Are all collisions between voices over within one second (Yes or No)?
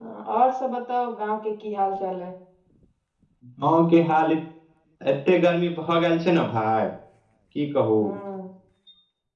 Yes